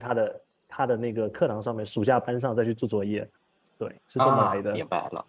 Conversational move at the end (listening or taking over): taking over